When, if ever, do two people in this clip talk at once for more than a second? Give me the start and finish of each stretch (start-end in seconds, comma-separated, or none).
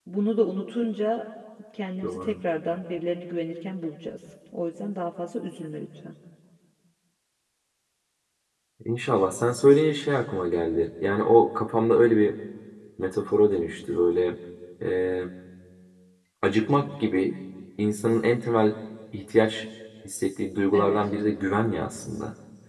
none